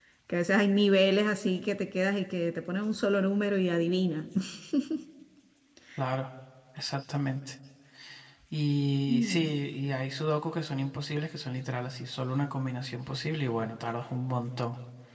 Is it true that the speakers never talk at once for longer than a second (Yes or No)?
Yes